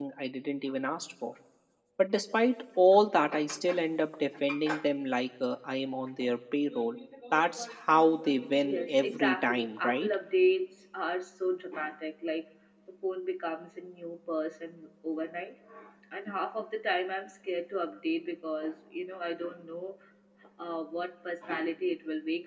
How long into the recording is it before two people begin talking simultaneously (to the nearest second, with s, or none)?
9 s